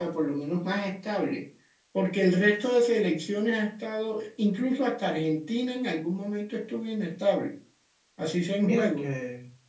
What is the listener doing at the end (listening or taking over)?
taking over